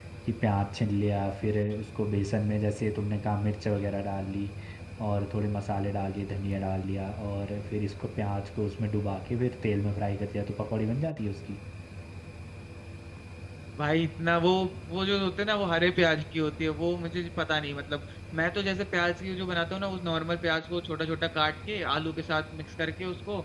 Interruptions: none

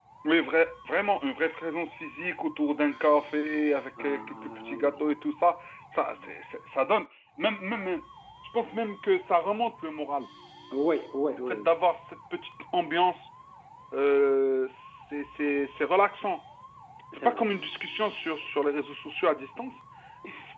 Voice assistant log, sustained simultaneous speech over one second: present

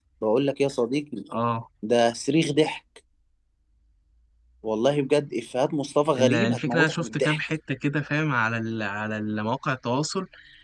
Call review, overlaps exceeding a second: present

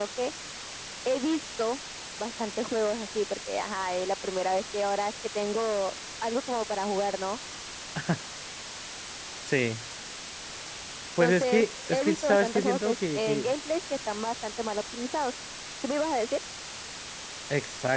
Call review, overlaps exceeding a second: present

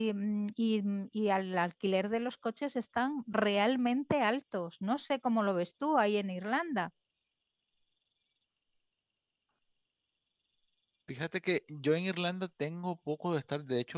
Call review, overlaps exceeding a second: none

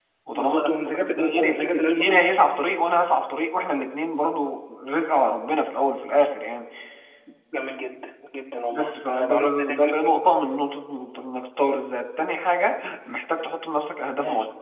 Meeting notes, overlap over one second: present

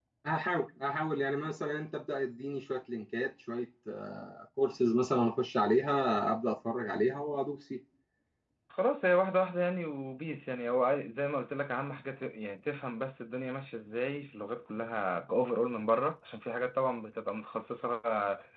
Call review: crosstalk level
none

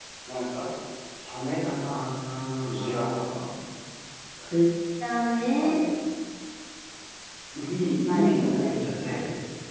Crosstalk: present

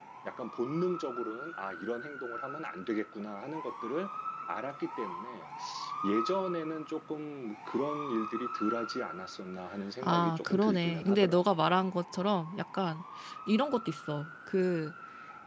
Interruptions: present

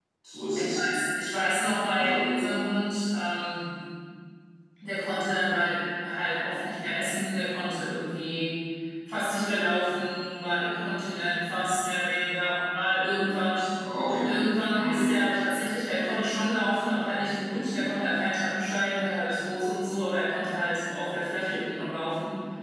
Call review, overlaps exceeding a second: none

